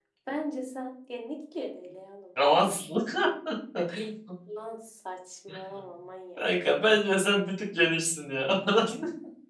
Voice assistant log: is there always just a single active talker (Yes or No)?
Yes